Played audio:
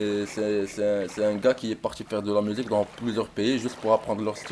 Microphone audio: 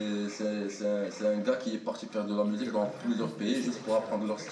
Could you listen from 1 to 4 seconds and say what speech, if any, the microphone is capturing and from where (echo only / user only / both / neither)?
both